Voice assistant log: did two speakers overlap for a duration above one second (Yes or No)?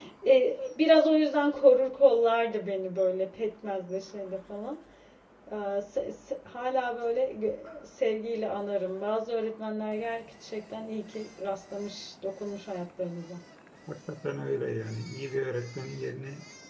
No